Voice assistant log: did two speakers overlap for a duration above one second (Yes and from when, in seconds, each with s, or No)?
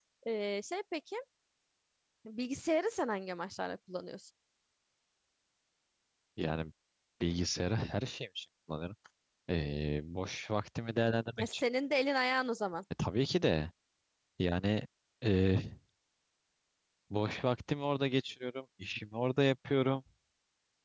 No